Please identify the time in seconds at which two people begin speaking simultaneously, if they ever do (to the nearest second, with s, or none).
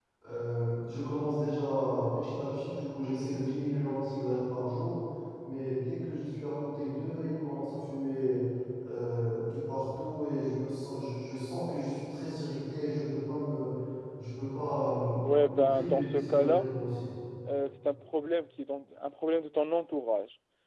15 s